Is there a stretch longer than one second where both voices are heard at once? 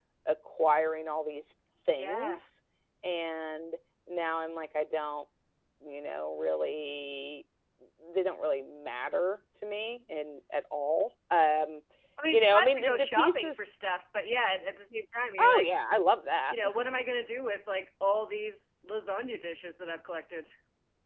Yes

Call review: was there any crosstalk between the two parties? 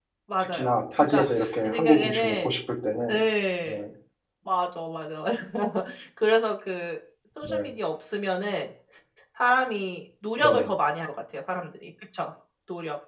Yes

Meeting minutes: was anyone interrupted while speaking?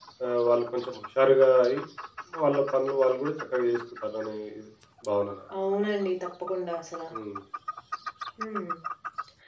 No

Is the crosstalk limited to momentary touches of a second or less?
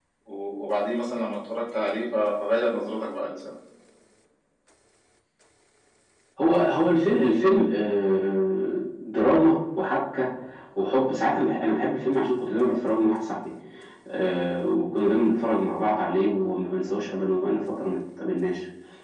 Yes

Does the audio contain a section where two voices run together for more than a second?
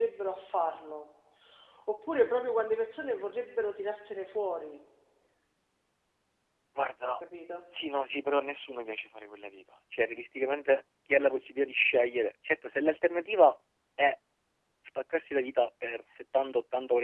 No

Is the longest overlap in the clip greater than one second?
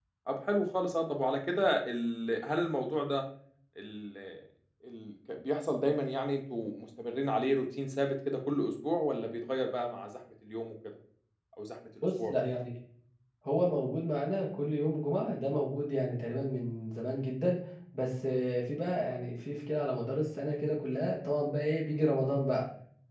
No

